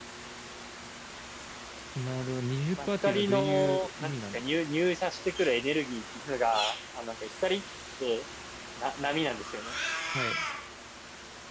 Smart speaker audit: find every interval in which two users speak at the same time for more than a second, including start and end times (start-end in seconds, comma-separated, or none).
2.8-4.6